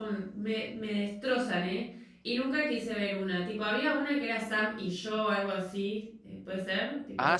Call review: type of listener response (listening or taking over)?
taking over